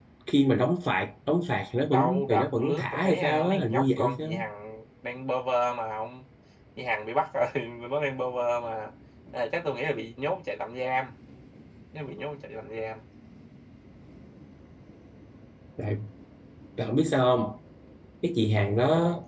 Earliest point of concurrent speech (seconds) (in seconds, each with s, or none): 1.9 s